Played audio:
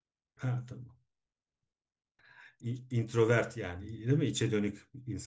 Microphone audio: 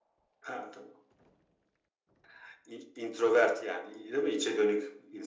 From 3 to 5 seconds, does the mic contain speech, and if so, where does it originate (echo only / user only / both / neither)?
echo only